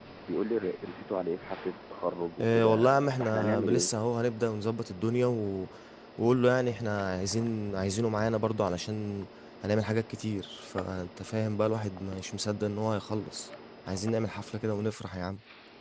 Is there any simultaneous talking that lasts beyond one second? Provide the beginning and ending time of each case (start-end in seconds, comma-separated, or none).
2.4-3.9